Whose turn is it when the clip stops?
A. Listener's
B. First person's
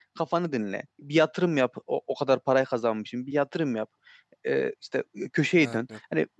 B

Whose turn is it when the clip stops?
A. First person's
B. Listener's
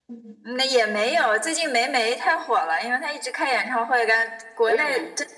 A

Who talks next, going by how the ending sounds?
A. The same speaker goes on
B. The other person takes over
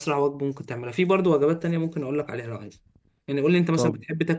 A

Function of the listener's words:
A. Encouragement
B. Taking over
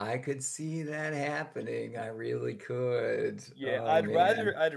B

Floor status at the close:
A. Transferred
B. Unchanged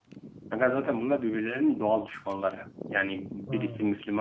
B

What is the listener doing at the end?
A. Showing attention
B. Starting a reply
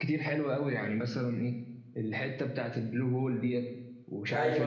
B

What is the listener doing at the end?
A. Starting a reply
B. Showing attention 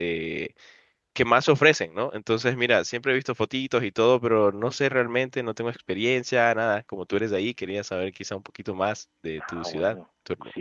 A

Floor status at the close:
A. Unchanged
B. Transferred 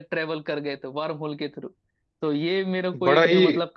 A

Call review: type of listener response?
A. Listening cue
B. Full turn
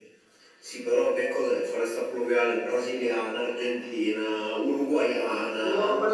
B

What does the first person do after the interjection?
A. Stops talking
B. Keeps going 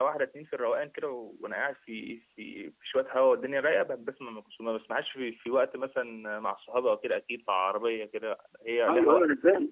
A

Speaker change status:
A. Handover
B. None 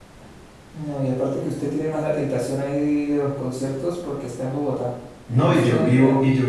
A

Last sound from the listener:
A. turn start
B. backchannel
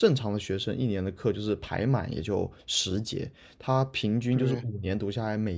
B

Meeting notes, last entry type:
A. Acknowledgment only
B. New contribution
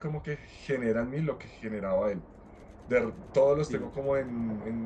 A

